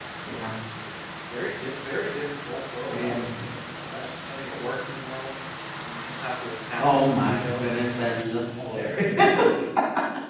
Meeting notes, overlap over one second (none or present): present